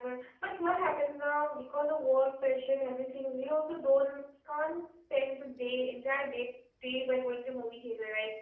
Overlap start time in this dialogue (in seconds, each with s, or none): none